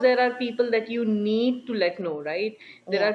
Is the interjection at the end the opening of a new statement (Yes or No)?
No